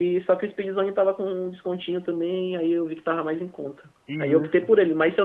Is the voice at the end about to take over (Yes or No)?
No